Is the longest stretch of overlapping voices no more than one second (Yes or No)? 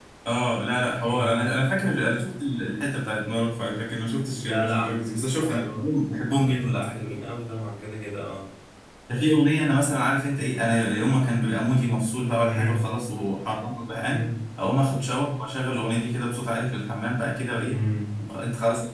Yes